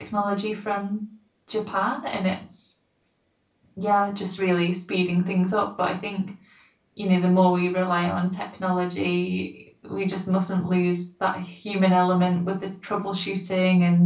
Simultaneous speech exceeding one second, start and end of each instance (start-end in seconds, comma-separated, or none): none